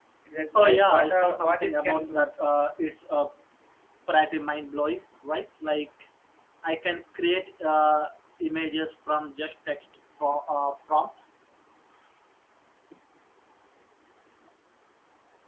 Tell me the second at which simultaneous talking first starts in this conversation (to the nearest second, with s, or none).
1 s